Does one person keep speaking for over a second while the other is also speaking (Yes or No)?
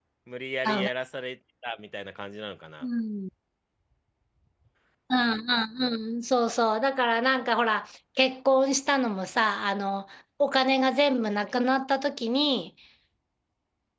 No